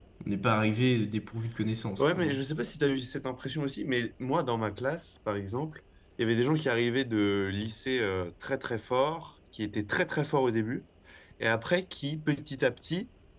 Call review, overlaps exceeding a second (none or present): none